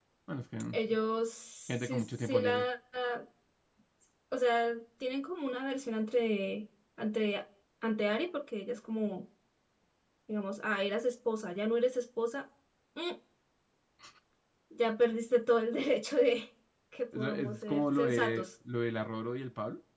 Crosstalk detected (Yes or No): Yes